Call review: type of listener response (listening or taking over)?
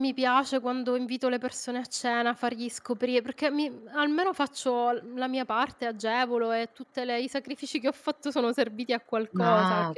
taking over